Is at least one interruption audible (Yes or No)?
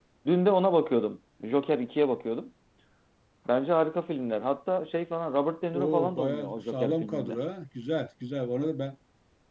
Yes